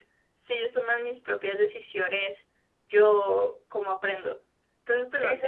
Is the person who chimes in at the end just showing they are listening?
No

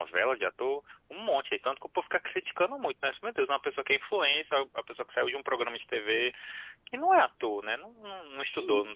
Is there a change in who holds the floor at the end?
No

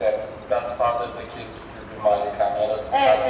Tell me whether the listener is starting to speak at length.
Yes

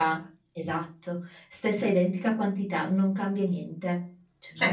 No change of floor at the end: No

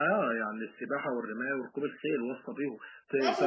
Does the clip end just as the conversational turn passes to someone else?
Yes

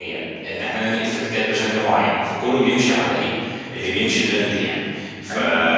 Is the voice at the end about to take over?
No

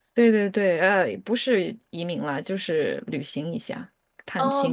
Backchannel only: No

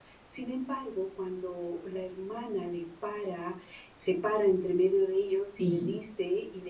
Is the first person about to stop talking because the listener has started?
No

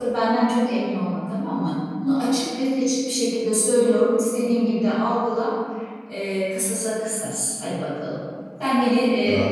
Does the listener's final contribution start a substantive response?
No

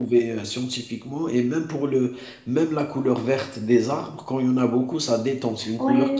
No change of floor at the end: No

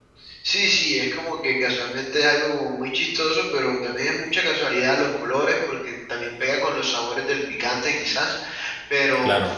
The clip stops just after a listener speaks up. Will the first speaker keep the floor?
Yes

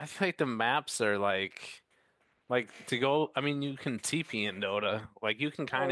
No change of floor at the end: No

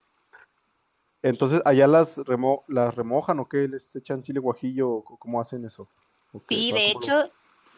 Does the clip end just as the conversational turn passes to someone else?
Yes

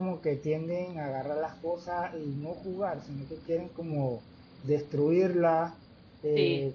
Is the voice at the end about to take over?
No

